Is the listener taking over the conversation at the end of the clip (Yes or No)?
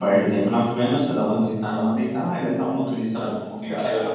Yes